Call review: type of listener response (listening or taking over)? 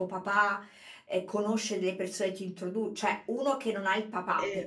listening